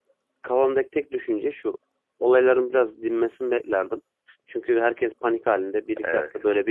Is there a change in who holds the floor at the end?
No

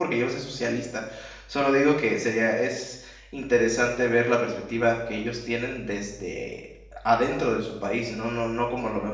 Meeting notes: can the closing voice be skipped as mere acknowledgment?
Yes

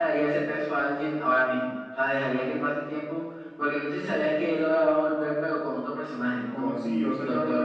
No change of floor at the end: No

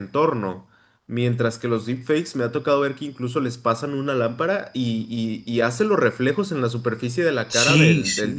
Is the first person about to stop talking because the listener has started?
Yes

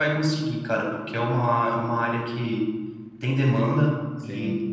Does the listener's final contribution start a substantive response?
No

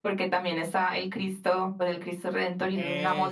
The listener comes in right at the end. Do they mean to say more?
No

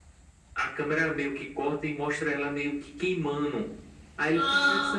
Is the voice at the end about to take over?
No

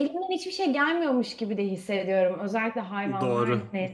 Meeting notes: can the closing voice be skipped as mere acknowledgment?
No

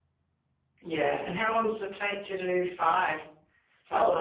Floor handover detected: Yes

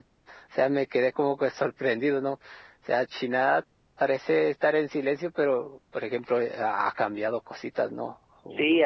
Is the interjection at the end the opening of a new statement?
Yes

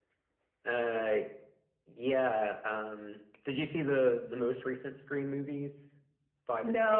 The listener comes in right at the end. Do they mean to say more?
Yes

